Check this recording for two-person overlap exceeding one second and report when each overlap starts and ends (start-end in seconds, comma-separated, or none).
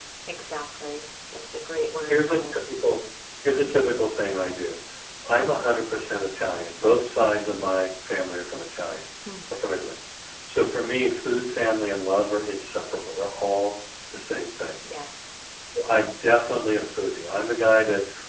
none